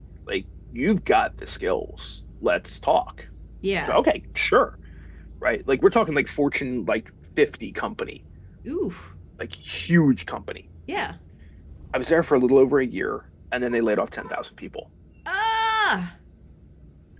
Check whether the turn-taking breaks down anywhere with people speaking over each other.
No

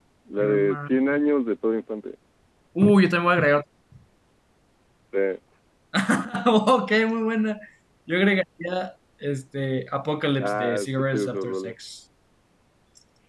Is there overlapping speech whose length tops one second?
Yes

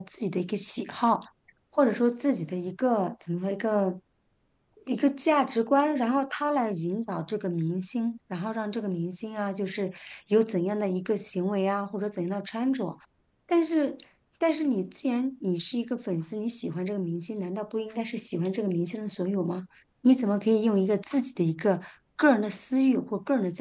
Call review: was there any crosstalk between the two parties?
No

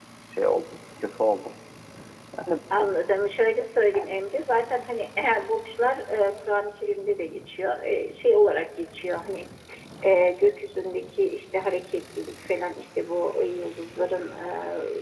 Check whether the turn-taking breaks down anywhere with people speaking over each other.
No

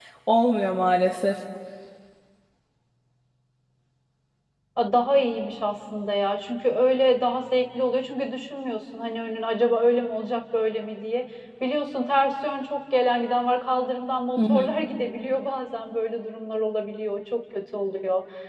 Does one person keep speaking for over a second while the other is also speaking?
No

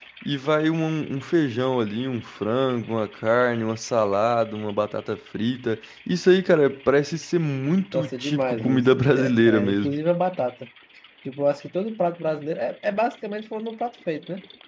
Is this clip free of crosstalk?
No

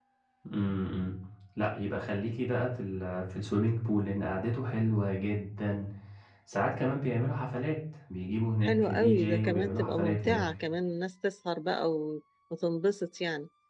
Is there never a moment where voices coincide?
No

